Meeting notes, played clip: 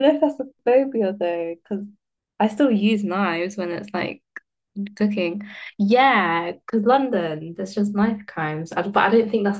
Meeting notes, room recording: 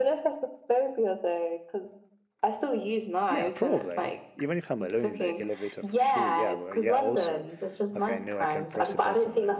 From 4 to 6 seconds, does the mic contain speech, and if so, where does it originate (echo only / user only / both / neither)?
both